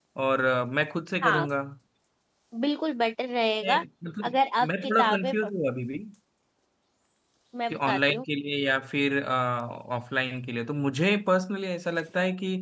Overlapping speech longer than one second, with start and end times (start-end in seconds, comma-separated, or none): 4.3-5.5